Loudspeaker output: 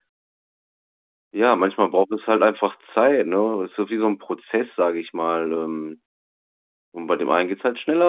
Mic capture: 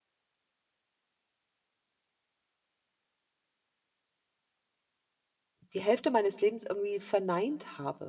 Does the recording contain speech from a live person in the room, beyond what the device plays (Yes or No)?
Yes